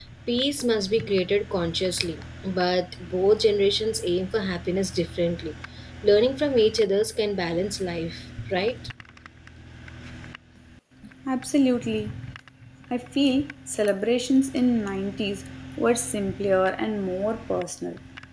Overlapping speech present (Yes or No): No